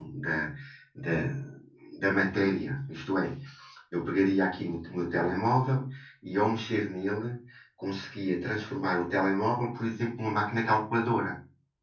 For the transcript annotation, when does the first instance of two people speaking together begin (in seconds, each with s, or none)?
none